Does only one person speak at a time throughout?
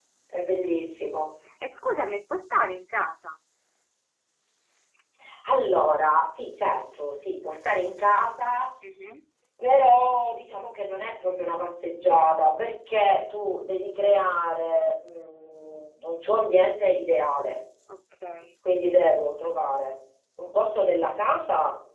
Yes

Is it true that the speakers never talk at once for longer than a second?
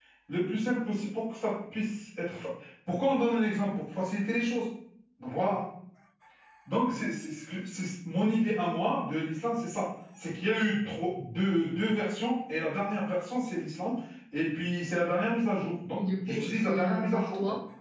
No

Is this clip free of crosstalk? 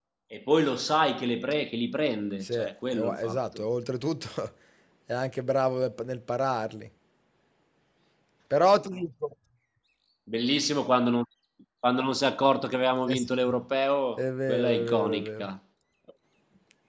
No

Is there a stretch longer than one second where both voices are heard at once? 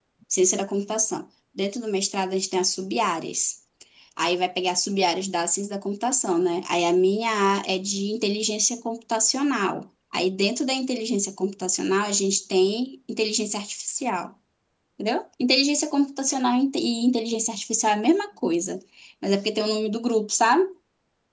No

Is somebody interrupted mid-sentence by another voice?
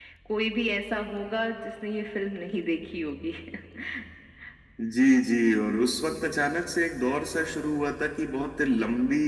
No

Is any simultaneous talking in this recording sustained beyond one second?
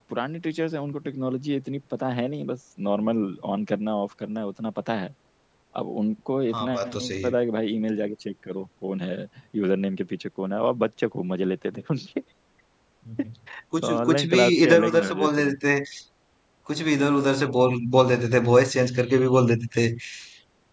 Yes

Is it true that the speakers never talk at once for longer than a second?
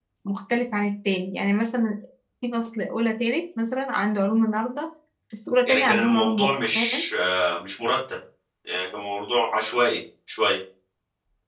No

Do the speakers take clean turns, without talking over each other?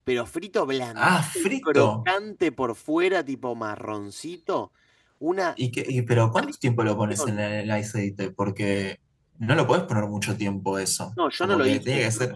No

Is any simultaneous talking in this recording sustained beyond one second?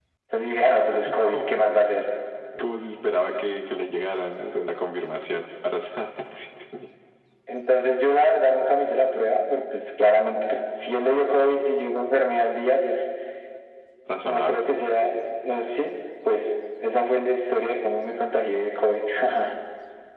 No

